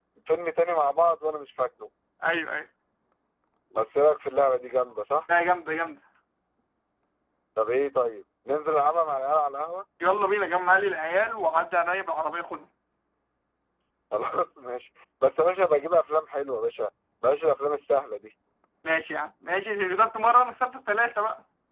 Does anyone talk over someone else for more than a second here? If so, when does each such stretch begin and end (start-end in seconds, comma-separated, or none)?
none